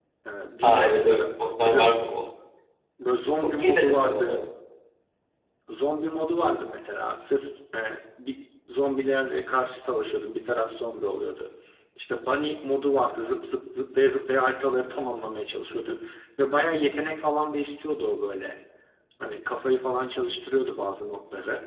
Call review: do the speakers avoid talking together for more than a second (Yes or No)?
No